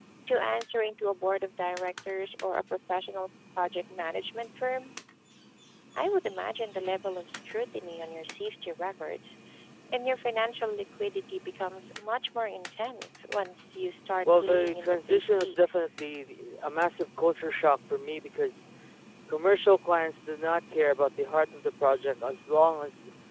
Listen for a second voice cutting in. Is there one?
Yes, from 14.2 s

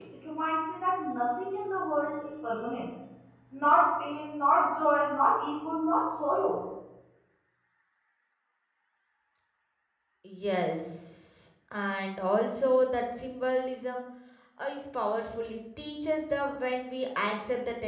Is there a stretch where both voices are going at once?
No

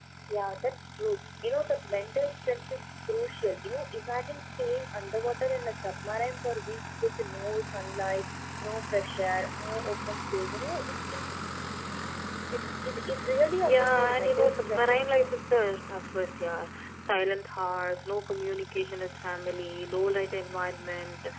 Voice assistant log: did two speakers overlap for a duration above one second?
Yes, from 13.6 s

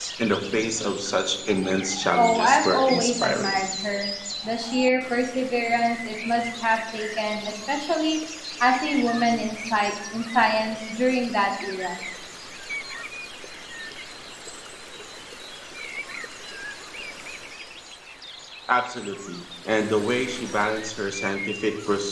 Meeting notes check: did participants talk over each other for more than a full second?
Yes, from 2.1 s

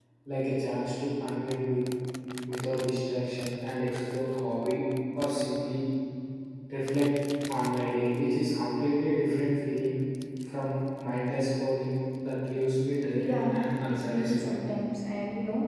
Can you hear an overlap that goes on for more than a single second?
Yes, from 13.2 s

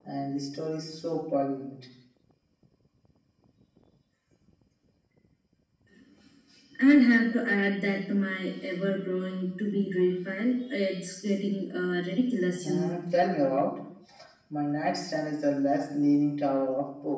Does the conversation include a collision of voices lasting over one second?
No

